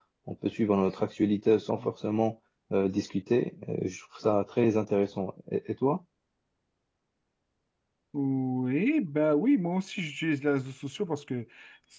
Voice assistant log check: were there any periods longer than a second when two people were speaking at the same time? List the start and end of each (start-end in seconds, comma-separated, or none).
none